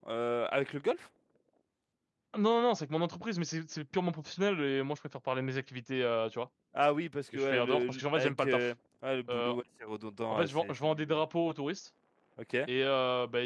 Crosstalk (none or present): present